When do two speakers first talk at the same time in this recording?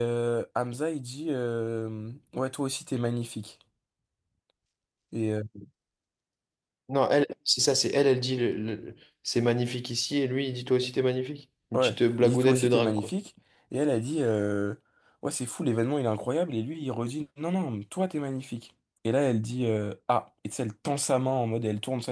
11.7 s

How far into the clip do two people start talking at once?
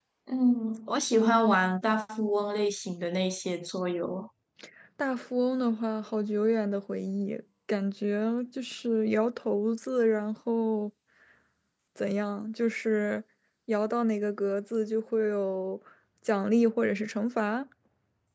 none

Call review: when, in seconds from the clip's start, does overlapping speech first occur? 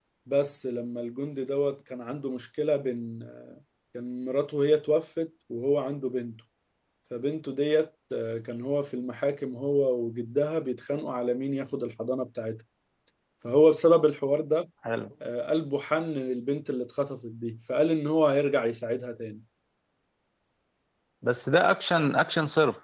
none

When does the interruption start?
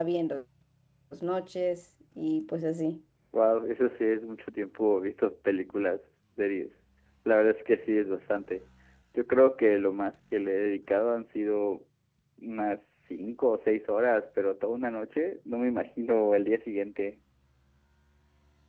none

